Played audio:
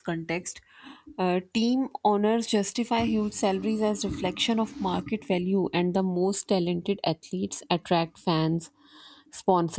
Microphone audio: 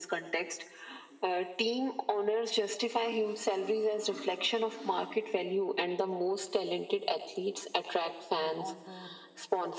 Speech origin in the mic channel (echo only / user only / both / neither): both